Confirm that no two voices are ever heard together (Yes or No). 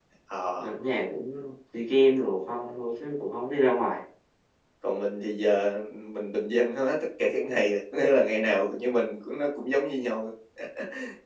Yes